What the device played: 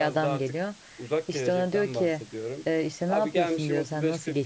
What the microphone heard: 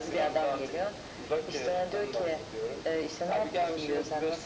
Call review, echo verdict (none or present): present